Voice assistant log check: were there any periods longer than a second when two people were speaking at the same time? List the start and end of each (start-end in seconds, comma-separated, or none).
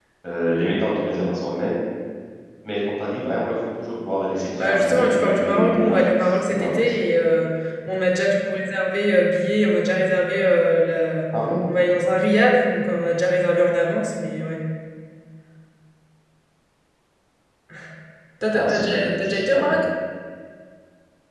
4.6-6.8, 18.5-19.7